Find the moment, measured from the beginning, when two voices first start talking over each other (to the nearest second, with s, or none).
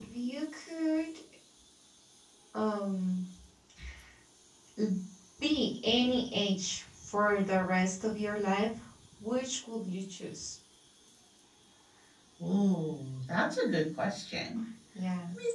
none